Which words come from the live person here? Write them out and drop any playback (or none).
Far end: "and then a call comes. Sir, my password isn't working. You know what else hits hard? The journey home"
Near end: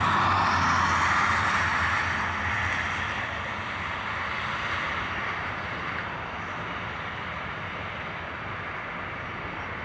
none